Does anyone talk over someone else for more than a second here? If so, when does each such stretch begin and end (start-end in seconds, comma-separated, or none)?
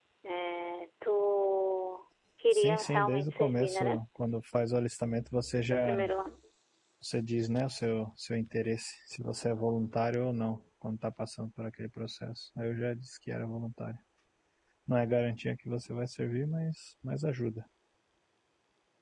2.5-4.0